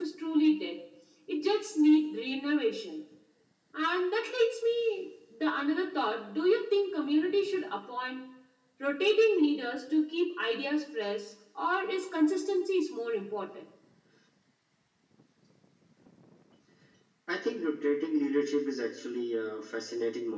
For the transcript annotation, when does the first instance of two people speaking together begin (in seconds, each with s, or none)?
none